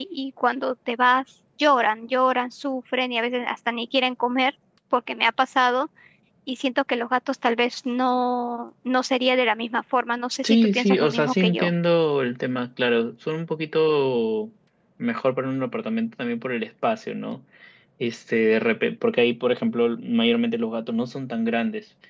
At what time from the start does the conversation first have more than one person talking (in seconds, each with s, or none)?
10.4 s